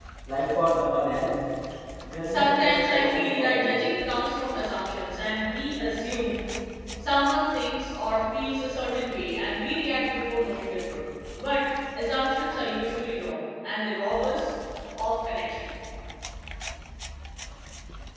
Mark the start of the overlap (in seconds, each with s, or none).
2.2 s